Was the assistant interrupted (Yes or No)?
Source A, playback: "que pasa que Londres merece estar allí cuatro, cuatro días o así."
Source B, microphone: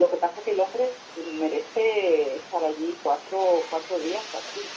No